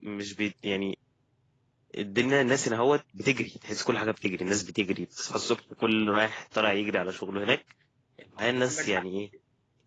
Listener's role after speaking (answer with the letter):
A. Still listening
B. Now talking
A